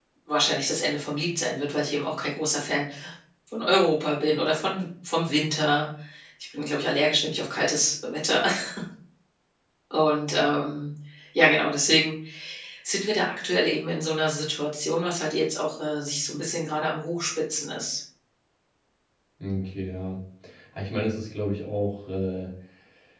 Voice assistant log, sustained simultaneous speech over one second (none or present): none